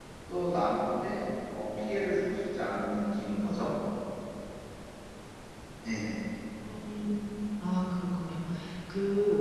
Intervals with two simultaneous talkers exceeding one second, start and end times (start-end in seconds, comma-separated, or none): none